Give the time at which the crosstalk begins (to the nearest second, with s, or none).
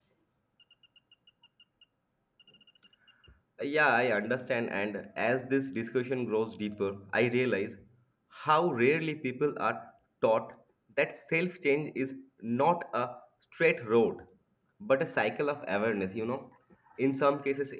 none